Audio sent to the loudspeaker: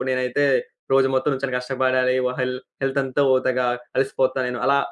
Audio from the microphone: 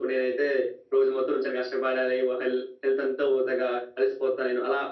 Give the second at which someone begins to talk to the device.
none

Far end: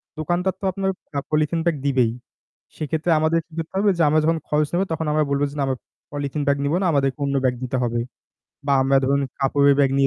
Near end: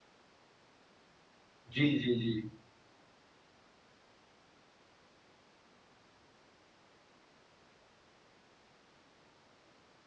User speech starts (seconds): 2 s

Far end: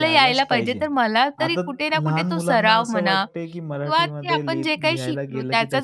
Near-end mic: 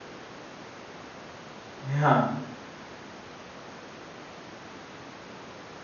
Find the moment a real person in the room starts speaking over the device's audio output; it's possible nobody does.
2 s

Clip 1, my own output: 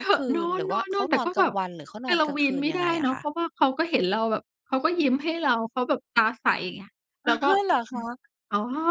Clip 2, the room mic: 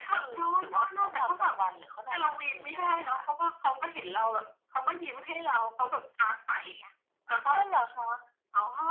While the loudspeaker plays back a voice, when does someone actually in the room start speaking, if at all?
none

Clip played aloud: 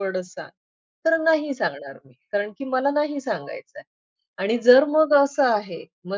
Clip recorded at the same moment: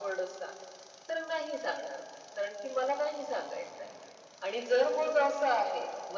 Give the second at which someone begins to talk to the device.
none

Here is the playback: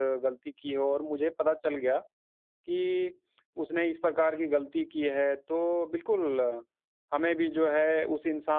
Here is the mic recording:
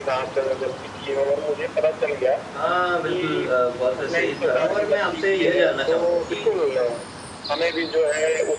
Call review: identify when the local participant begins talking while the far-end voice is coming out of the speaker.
3 s

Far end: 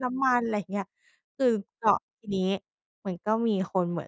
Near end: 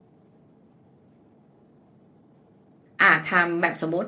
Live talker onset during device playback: 3 s

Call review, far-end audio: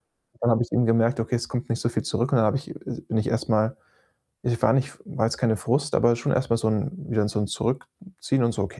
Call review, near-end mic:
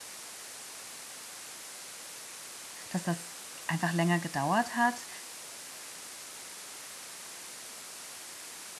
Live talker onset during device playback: 3 s

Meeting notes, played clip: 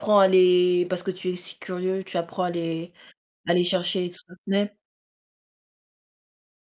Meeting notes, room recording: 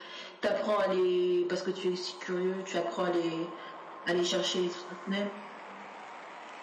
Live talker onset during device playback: none

